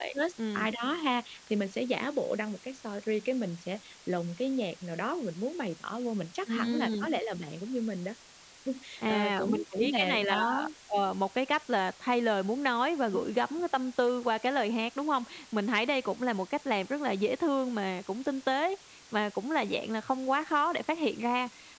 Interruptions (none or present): present